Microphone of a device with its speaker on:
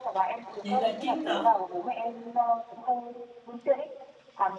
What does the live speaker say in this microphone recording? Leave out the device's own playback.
vậy là chiến thắng

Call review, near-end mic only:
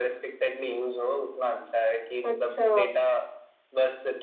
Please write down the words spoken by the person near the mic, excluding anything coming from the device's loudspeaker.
अच्छा

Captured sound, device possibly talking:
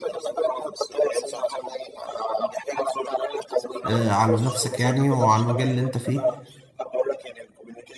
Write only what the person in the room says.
آه، على نفسك يعني وعلى المجال اللي انت فيه

